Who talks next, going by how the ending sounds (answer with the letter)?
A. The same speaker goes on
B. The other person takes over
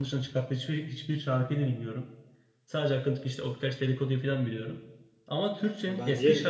A